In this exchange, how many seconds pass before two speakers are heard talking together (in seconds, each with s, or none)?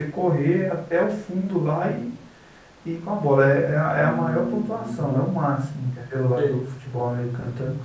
4.0 s